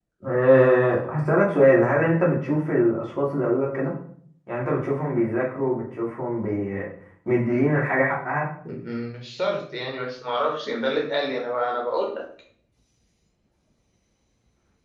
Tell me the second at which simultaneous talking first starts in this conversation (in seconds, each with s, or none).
none